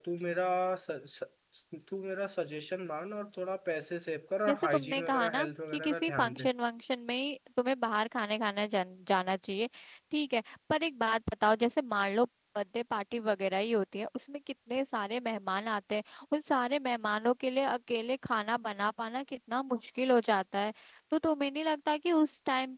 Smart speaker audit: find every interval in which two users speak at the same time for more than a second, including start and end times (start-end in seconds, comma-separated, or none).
4.5-6.5